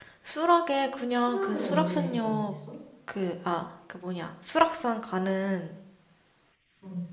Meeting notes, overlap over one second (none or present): present